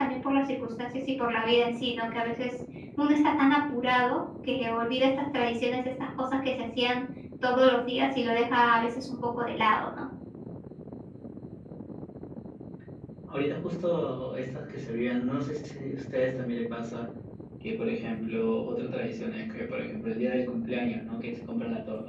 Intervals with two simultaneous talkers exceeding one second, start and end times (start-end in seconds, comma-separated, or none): none